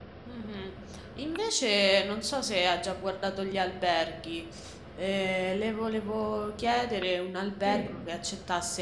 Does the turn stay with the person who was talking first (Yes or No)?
Yes